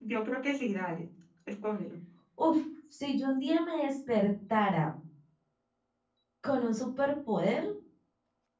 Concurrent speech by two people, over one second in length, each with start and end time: none

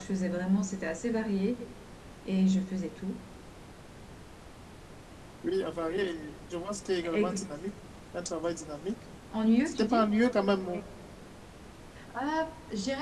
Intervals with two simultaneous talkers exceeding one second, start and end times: none

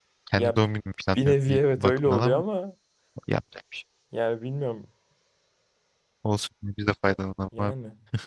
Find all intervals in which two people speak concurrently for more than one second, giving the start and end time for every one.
1.2-2.4

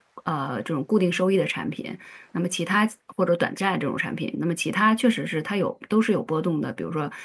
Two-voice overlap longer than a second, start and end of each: none

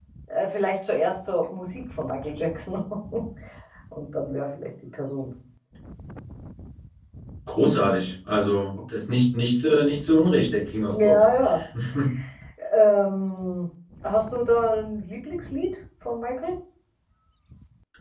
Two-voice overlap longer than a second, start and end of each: none

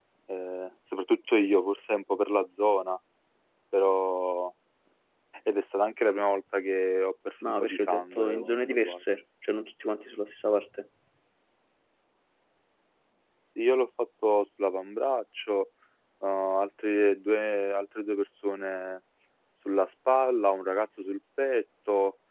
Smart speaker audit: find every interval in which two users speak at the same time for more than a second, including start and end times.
7.4-9.0

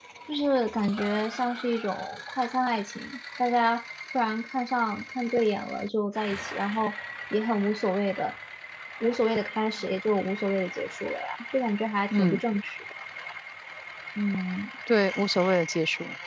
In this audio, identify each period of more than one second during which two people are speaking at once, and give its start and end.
none

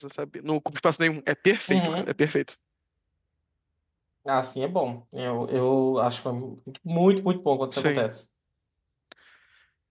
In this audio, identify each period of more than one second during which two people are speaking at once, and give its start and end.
none

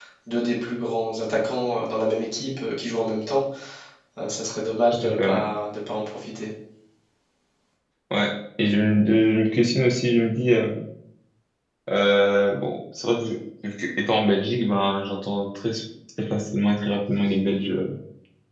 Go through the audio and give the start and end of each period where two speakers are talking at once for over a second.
none

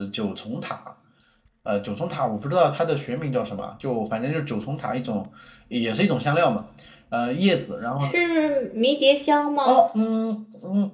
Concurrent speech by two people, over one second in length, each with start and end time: none

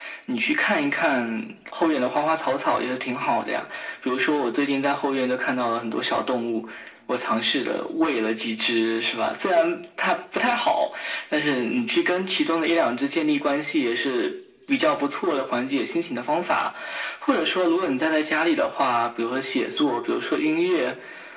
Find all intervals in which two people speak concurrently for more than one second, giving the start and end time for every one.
none

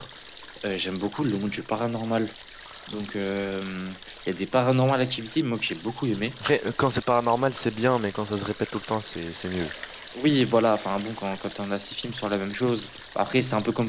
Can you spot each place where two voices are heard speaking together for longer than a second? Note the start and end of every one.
none

